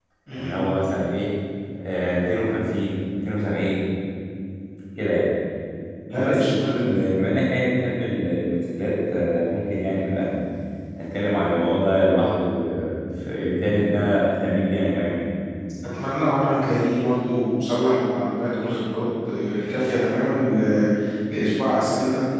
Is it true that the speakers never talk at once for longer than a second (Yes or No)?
Yes